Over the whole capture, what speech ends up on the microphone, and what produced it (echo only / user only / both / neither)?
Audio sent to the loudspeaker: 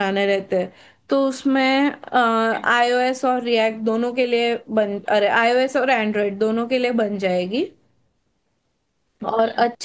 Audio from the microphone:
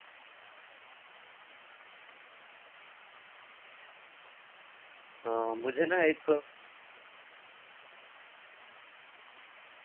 user only